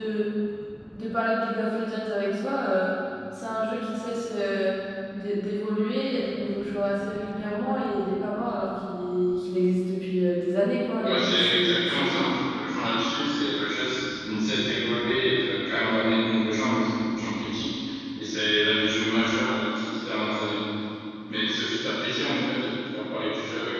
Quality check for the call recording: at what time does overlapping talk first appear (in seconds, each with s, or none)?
11.0 s